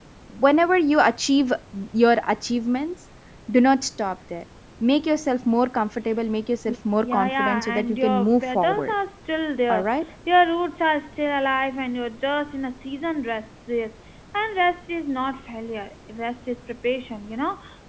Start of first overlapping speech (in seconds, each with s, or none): 7.0 s